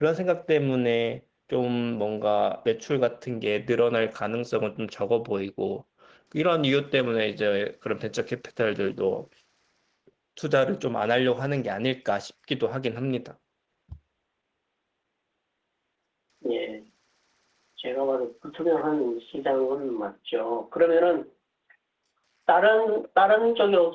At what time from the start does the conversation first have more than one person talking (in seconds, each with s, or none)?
none